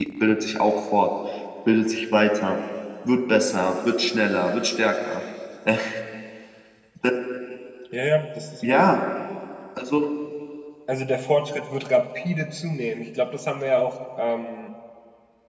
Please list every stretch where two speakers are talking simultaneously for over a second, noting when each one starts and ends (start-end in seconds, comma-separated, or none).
none